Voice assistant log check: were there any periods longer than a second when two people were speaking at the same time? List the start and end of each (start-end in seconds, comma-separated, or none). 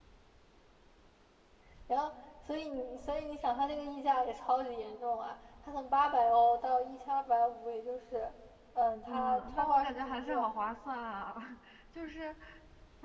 9.1-10.5